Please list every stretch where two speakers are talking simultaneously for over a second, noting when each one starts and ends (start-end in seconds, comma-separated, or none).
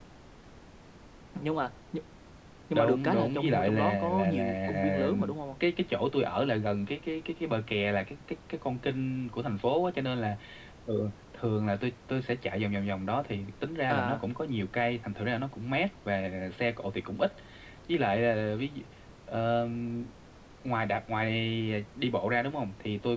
2.7-5.1